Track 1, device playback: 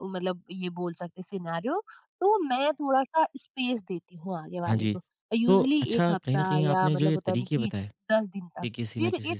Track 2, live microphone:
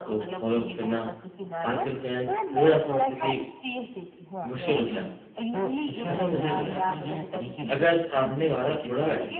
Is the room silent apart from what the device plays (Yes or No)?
No